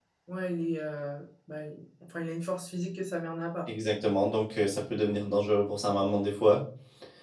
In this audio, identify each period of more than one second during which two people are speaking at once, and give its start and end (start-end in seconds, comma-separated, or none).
none